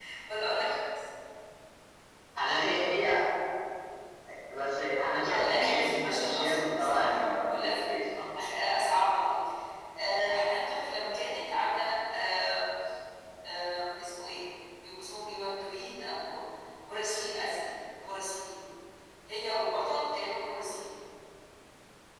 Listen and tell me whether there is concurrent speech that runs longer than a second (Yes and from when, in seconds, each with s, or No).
Yes, from 5.2 s